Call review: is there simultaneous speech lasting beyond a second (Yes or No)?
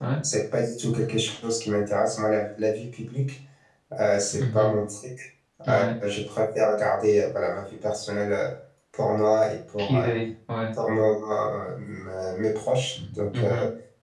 No